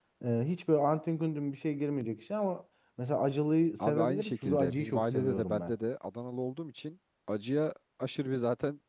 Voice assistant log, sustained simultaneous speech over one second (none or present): present